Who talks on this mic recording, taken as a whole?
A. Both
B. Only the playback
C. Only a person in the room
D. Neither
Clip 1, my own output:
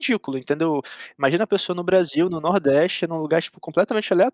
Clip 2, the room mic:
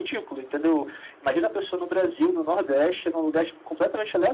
B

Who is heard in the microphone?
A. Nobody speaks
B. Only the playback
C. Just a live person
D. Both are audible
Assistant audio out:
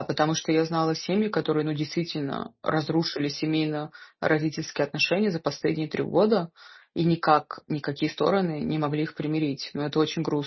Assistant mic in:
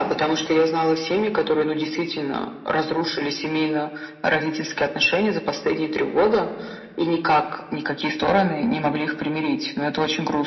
B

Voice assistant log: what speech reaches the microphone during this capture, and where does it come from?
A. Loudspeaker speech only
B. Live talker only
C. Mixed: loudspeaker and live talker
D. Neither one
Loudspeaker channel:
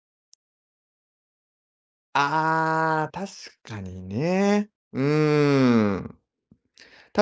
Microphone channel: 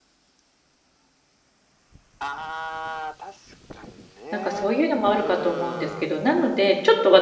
C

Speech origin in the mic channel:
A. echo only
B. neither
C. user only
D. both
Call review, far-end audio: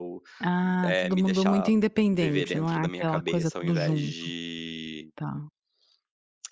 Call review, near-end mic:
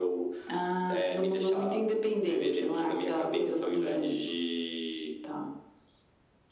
A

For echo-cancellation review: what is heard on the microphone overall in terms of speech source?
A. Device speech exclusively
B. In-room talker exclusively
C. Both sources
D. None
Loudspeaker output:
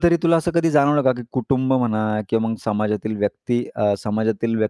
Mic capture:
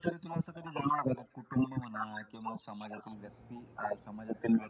A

